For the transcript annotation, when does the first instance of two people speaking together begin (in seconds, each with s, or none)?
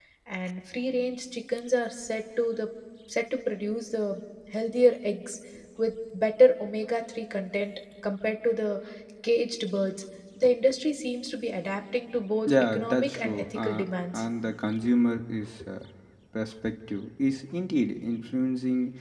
12.5 s